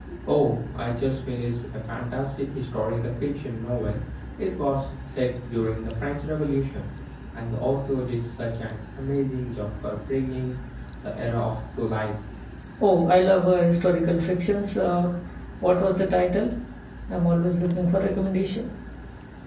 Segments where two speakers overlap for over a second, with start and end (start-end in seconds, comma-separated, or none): none